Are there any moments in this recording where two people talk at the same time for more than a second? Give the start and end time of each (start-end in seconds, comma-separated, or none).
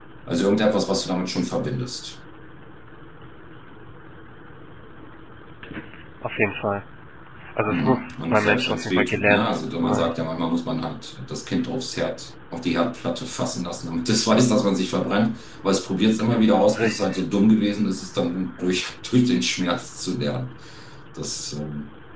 7.7-10.1